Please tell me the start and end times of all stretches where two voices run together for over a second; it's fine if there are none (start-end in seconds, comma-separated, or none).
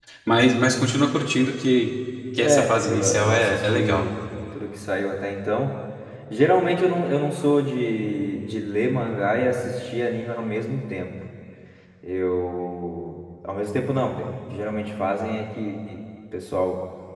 2.4-4.0